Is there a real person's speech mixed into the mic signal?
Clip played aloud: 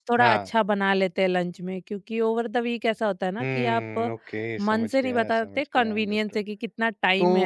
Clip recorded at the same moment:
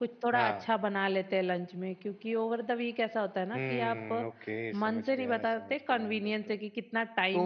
No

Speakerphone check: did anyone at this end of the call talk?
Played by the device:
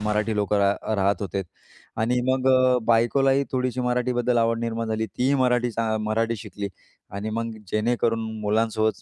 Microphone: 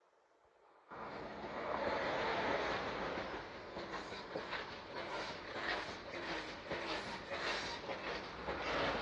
No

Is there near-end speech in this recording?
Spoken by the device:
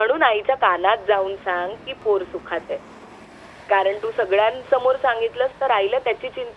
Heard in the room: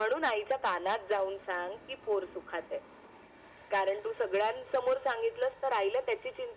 No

